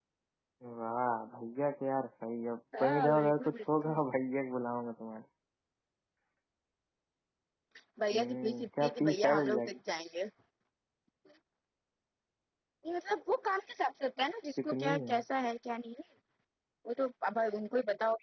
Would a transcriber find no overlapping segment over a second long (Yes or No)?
No